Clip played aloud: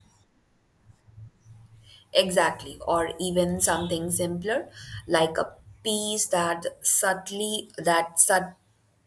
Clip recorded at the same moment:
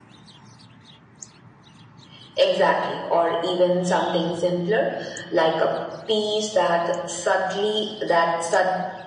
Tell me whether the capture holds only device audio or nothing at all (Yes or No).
Yes